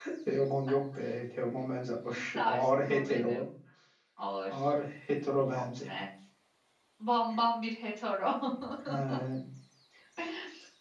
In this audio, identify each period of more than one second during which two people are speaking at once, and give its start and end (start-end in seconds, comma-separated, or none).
2.0-3.5